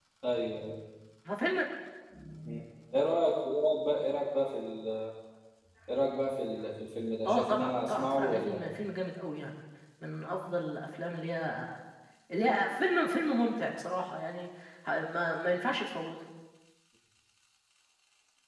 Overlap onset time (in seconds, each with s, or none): 7.2 s